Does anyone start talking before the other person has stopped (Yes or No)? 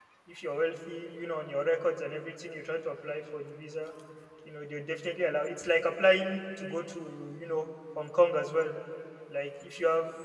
No